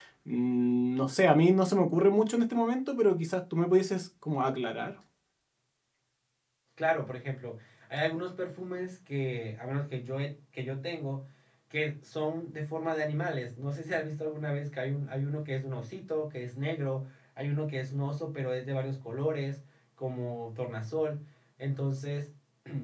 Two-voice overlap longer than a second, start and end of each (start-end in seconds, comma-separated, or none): none